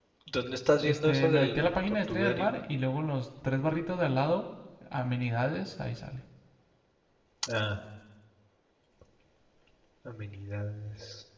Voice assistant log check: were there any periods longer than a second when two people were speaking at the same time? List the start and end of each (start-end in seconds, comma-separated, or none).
0.8-2.5